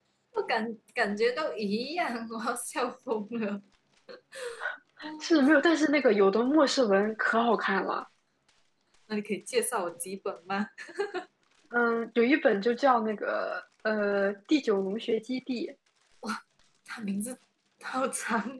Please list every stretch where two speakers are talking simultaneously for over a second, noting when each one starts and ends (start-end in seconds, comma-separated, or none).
none